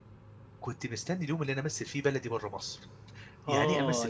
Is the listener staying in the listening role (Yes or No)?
No